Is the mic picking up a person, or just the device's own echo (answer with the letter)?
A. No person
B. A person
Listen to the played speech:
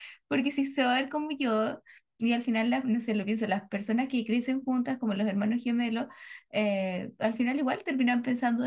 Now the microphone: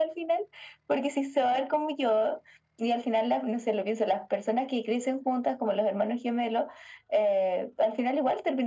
A